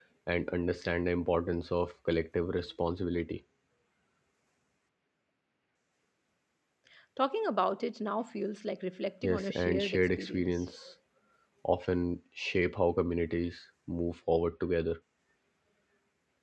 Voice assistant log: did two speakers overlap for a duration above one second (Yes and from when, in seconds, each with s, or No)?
Yes, from 9.2 s